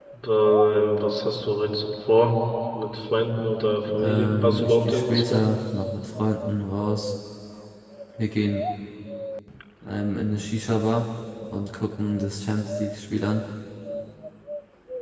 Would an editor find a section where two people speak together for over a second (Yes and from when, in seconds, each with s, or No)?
Yes, from 3.9 s